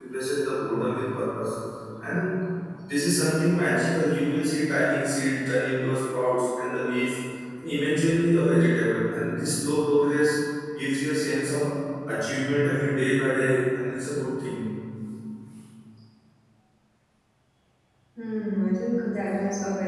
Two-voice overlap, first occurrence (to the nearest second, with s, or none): none